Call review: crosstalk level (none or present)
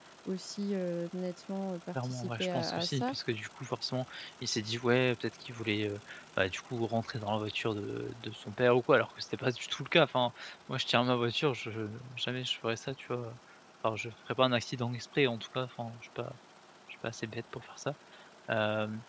present